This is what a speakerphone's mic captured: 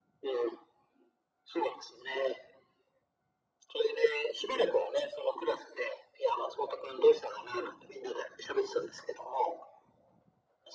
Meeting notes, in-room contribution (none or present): none